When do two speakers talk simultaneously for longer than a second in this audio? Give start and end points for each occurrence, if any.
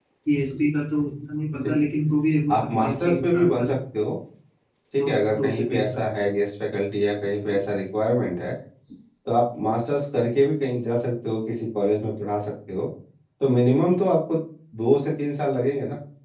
2.5-3.8, 5.0-6.3

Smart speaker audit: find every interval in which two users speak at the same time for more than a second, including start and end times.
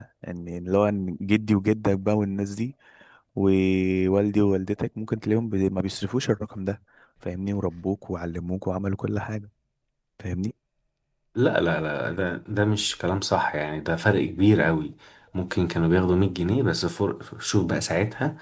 none

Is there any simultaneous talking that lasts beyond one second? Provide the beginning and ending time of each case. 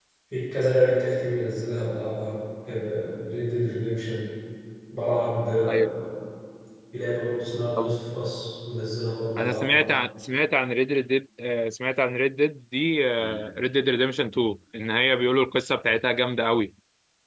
none

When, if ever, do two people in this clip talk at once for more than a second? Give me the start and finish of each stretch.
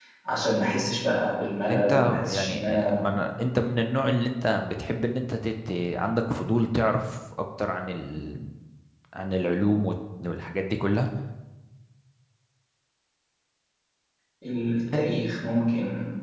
1.7-3.1

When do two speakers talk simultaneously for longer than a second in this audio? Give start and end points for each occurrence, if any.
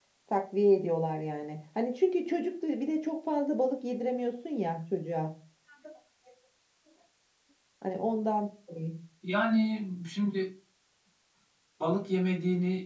none

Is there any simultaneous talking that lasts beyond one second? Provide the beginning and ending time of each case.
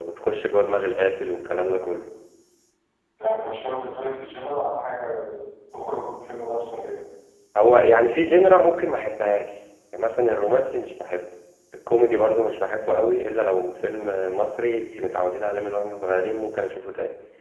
none

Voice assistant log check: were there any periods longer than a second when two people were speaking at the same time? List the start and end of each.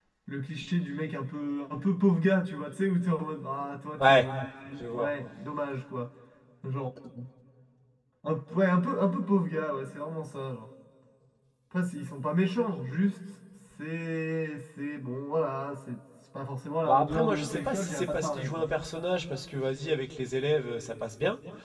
16.9-18.7

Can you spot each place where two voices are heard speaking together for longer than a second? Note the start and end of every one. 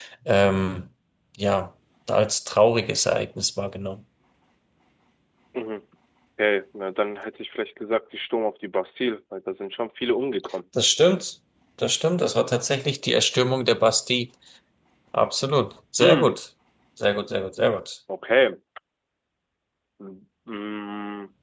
none

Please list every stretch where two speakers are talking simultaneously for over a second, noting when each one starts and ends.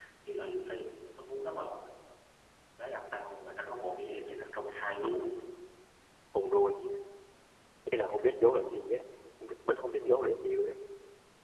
none

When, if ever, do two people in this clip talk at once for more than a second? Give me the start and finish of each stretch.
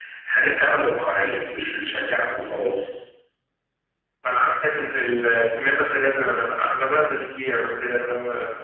none

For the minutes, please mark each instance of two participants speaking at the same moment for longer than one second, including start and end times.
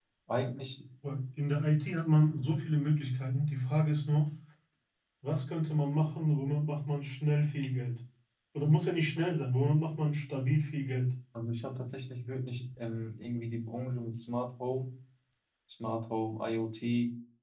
none

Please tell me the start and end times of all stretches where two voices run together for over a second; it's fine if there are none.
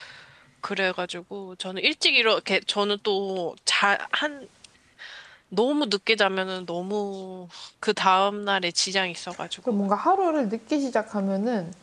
none

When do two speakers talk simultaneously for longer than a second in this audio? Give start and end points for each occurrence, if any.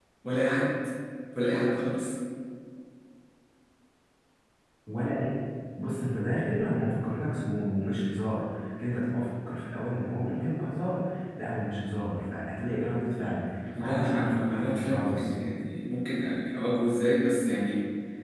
13.8-15.3

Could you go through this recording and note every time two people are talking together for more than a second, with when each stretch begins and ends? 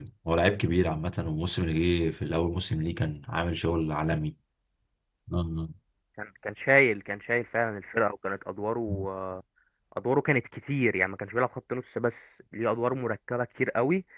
none

